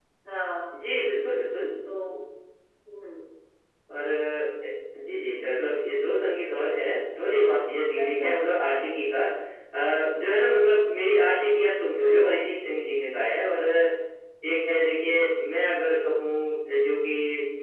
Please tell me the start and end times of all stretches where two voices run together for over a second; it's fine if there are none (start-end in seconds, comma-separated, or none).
none